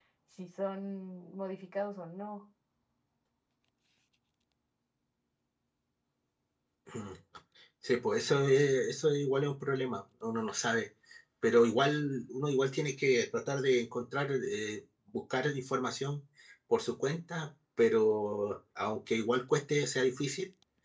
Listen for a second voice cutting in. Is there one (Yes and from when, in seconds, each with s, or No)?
No